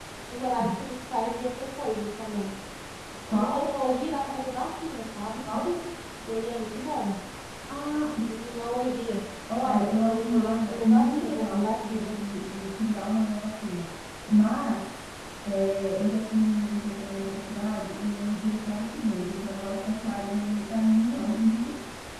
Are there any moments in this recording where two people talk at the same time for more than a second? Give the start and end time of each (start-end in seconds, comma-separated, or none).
9.6-12.1